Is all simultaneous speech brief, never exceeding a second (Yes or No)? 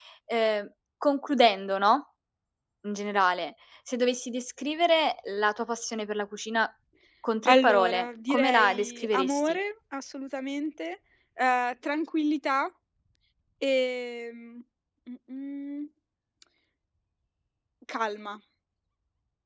No